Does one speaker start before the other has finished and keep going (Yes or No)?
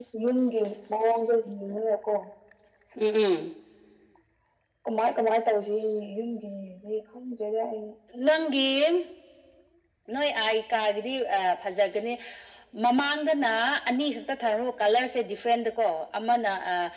No